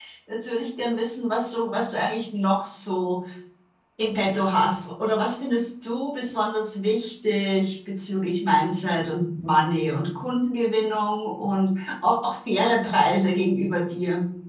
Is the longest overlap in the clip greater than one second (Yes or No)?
No